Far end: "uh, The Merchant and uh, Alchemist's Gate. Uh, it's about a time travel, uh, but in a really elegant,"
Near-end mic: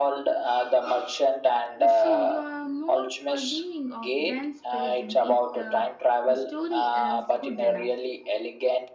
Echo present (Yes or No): Yes